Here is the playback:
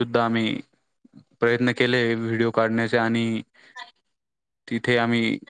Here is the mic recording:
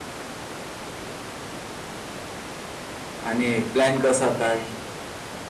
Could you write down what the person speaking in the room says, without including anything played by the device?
आणि प्लॅन कसा काय

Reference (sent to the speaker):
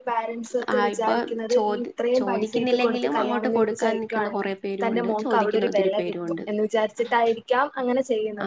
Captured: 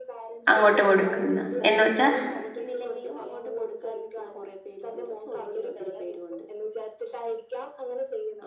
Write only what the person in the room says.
അങ്ങോട്ട് കൊടുക്കുന്ന എന്ന് വെച്ചാ

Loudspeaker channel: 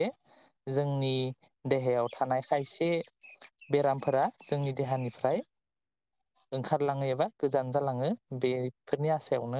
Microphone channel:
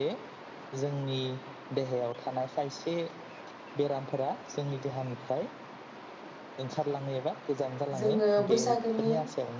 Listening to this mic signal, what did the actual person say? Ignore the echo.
जोंङो बैसागोनि

